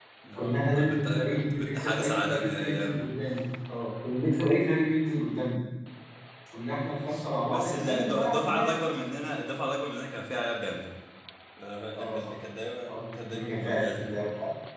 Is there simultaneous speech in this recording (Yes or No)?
Yes